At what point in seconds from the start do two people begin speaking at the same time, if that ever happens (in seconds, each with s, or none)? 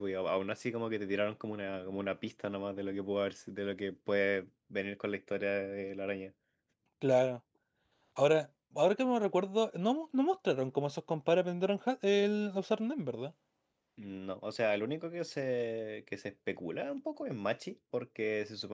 none